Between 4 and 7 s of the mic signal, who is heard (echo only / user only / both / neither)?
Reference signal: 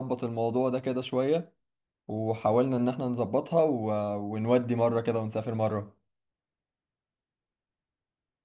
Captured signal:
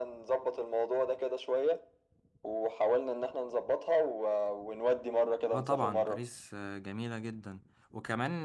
both